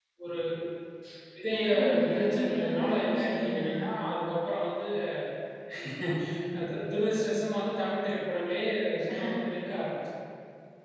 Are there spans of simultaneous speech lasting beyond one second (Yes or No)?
Yes